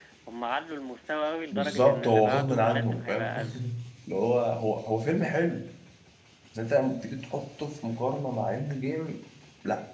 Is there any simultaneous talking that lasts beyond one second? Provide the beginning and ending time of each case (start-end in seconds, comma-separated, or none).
1.5-3.3